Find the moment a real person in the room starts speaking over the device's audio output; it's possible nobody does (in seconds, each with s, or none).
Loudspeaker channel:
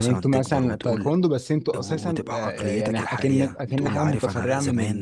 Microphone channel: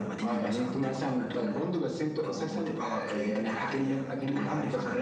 none